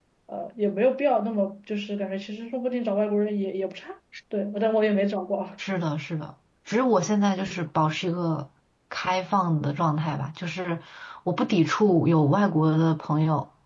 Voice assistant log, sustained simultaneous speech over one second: none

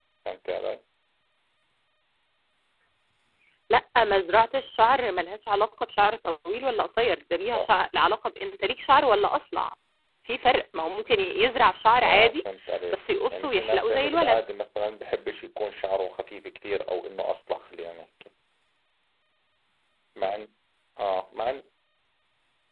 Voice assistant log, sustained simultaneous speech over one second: present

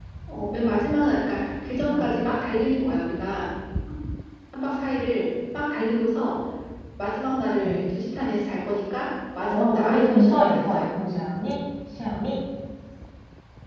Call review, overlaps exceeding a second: present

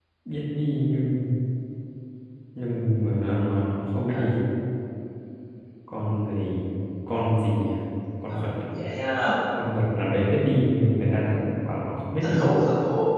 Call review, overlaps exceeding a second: none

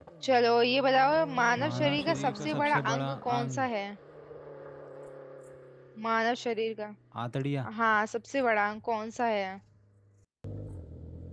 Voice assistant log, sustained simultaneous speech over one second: present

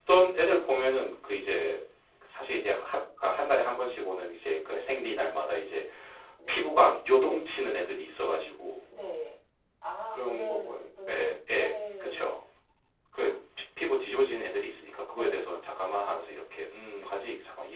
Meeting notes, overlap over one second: present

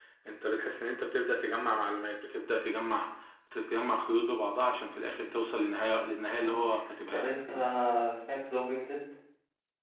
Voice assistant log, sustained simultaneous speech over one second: none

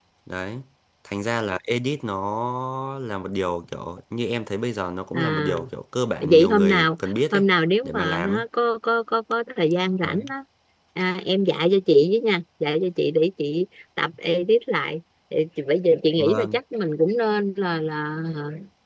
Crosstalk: present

